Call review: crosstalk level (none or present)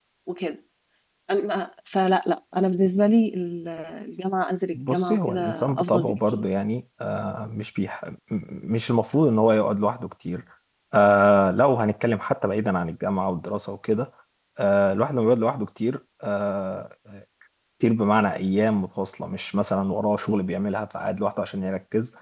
present